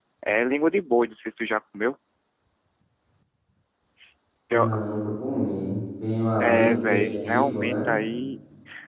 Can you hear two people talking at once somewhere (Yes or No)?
Yes